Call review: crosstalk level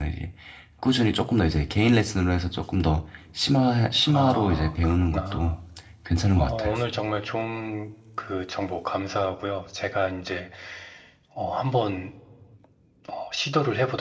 present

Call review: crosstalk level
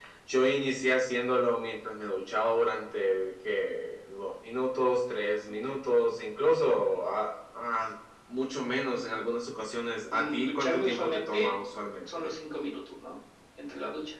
present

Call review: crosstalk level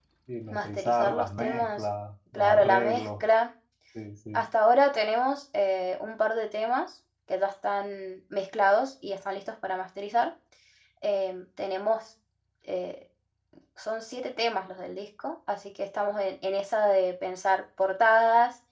present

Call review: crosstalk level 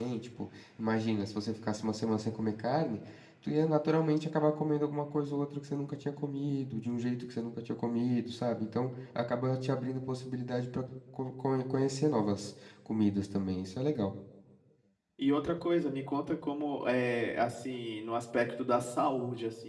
none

